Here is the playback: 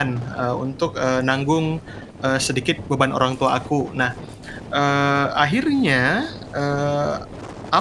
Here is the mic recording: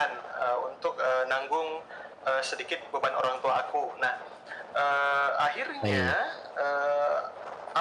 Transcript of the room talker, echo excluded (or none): Baik.